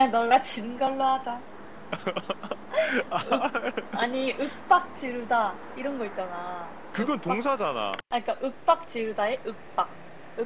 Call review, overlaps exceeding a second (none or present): none